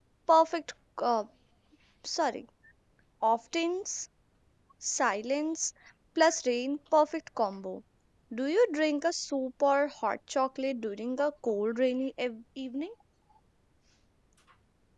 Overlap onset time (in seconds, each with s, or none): none